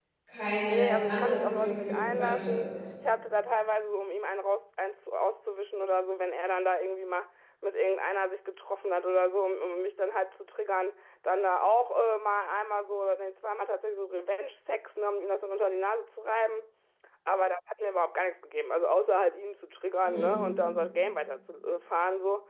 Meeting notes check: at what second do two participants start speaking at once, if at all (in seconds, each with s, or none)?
0.7 s